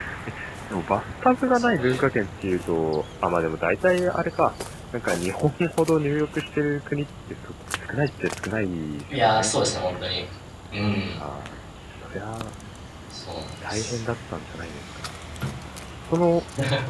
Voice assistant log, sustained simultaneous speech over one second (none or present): none